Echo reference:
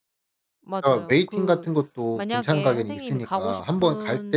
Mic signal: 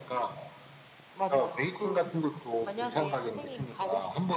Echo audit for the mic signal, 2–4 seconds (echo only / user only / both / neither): echo only